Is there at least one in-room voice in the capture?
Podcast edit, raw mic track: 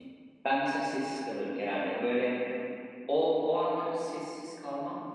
Yes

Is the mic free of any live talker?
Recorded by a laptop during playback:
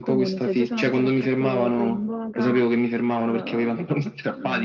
No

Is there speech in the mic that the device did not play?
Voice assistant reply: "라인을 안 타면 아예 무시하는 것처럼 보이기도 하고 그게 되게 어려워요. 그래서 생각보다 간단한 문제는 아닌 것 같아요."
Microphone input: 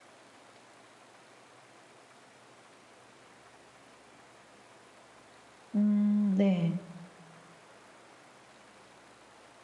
Yes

